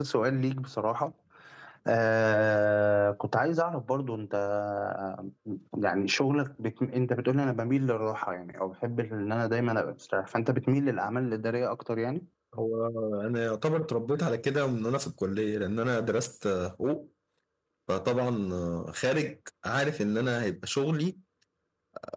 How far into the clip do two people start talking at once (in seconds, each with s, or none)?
none